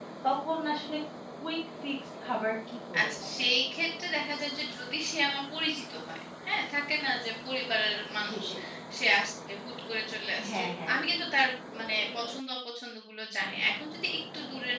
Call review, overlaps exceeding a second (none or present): none